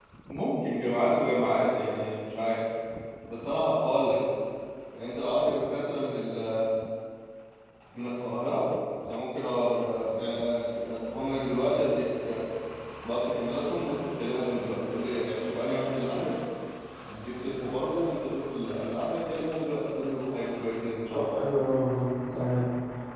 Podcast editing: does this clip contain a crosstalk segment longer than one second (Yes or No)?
No